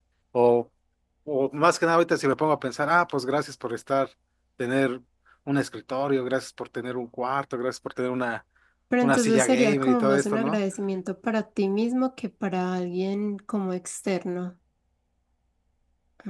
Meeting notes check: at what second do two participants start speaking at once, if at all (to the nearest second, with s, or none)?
9 s